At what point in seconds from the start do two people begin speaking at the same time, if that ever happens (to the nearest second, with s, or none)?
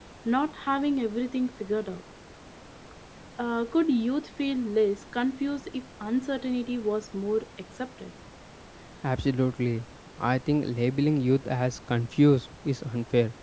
none